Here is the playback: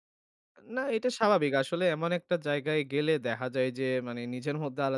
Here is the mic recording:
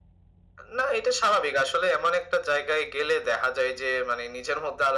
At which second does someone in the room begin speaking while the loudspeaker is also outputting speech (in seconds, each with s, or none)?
none